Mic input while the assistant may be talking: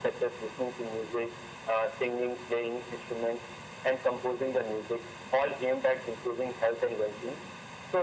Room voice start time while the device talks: none

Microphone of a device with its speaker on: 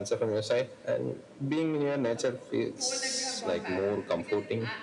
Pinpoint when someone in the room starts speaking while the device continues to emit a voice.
2.1 s

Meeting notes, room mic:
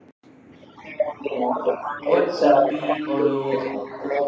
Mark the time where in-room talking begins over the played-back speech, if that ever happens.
2.0 s

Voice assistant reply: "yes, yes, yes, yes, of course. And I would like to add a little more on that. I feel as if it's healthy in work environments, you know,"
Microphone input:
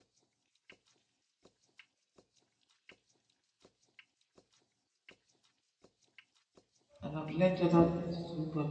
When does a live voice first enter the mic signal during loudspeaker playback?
7.0 s

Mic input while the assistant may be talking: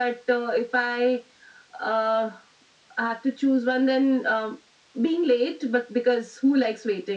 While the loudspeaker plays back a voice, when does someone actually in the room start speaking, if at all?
none

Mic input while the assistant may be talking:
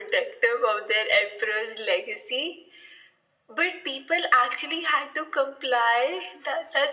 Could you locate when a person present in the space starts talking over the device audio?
none

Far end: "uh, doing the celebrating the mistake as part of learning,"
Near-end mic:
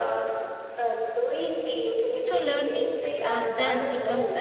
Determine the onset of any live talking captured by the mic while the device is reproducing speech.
2.1 s

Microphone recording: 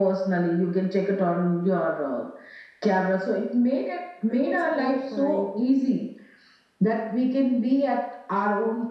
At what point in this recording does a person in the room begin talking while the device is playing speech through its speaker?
4.3 s

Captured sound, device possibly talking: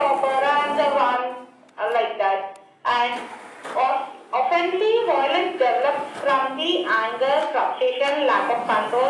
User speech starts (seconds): none

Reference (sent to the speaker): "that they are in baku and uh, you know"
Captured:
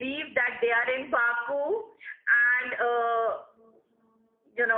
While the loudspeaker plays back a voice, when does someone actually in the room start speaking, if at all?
none

